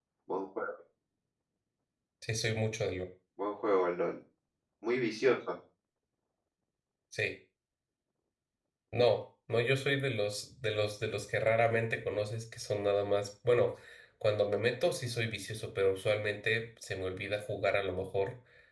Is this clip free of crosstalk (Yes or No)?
Yes